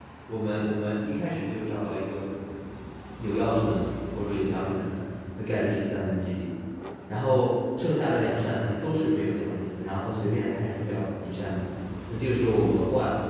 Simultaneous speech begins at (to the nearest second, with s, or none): none